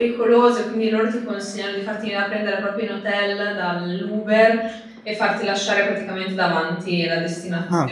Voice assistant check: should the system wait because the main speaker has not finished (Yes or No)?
No